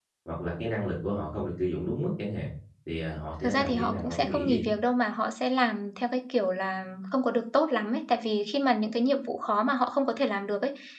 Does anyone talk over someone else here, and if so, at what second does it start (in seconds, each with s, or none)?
3.4 s